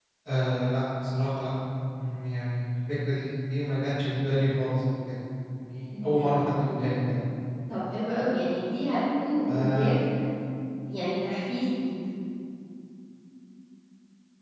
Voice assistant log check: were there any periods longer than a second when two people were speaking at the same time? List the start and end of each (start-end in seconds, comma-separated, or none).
none